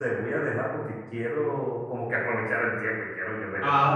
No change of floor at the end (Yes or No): No